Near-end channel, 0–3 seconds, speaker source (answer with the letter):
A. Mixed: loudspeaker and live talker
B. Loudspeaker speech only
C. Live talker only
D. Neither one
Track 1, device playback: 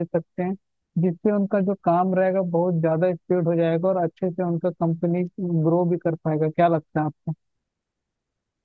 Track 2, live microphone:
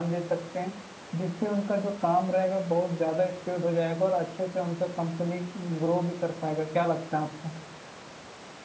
B